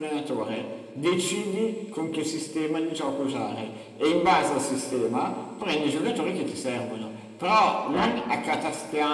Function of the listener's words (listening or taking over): listening